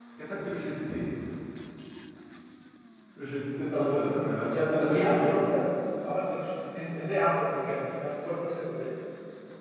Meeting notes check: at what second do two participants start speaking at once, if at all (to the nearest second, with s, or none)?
4 s